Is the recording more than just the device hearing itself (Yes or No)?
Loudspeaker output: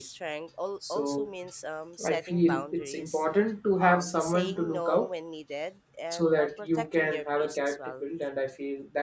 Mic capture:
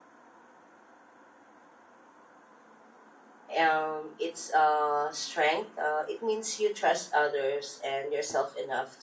Yes